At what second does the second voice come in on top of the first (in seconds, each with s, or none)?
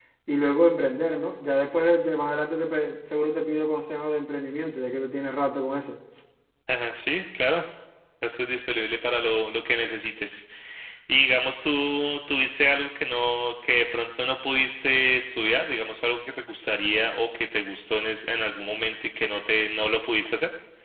none